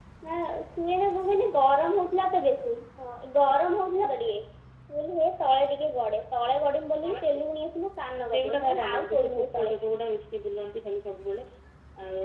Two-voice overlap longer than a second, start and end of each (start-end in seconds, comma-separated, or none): 8.3-9.7